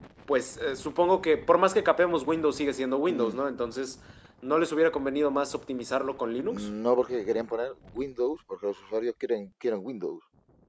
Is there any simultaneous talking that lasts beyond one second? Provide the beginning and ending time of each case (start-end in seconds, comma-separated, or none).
none